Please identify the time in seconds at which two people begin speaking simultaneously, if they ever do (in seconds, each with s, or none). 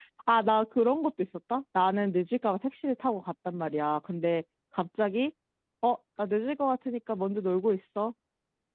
none